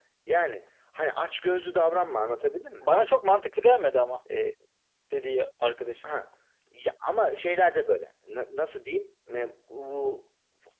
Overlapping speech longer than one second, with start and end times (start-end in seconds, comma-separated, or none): none